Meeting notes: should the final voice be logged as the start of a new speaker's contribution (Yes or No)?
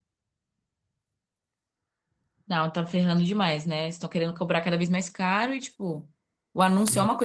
No